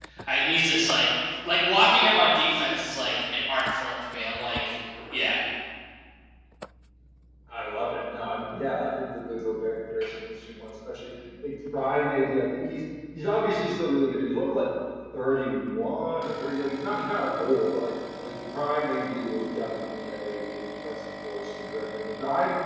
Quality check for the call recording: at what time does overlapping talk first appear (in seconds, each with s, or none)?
none